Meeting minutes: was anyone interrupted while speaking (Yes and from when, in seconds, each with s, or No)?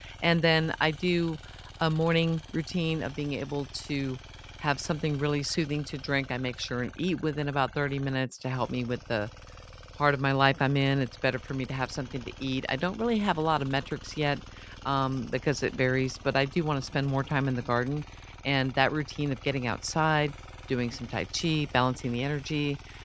No